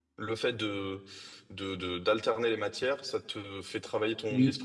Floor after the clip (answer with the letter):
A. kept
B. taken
A